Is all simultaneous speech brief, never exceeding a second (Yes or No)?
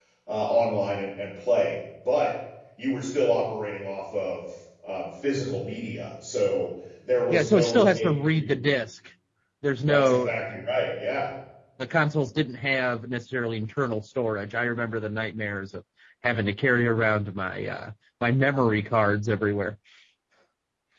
No